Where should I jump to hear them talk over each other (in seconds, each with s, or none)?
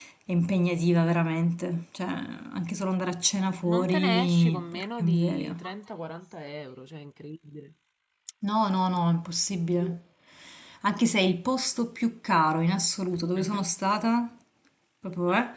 3.7 s